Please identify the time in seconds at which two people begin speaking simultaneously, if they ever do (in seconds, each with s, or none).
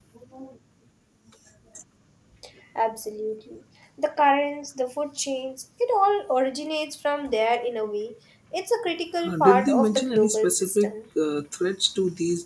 9.2 s